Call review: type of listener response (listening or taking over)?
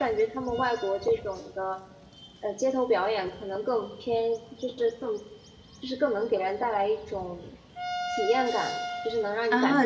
taking over